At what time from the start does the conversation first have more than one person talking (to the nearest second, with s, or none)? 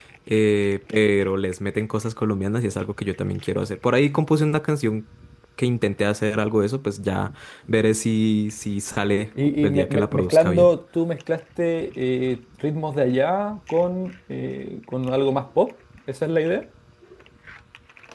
9 s